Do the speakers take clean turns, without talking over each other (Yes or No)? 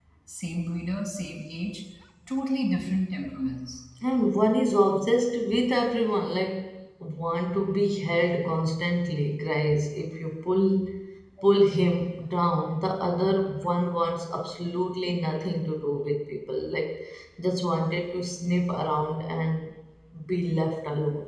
Yes